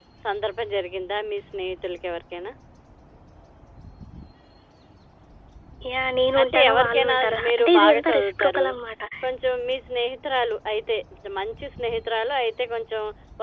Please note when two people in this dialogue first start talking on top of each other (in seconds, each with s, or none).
6.4 s